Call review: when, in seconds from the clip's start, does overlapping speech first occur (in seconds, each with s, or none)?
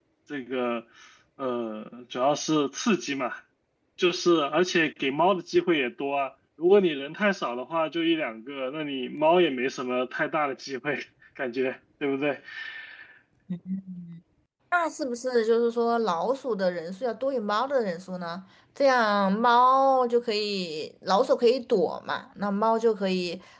none